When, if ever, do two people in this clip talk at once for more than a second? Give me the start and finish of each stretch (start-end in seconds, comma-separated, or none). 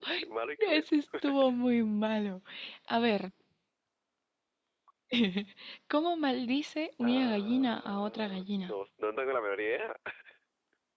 7.0-8.7